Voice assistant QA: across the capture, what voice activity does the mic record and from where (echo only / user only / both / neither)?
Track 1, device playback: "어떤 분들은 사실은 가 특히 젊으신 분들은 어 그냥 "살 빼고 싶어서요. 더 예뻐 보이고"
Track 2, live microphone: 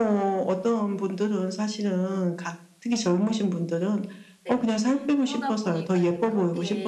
both